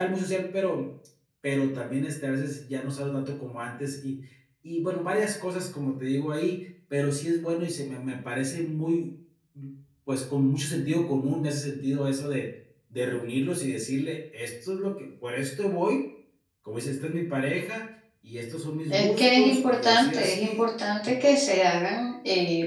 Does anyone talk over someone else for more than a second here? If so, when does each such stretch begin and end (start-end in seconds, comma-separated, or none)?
18.9-20.6